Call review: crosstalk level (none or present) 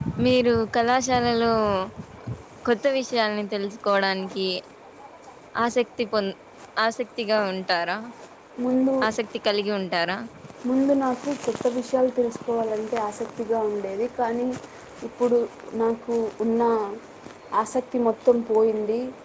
none